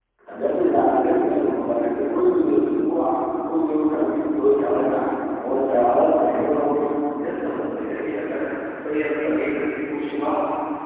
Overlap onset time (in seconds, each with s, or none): none